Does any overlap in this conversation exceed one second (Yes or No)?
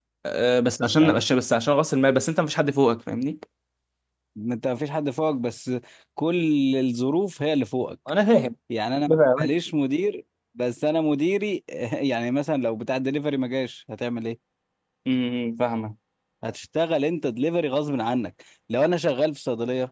No